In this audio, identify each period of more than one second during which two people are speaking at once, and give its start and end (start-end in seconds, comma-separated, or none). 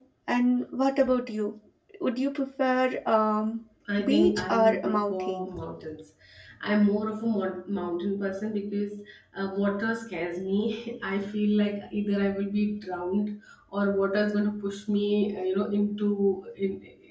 4.0-5.5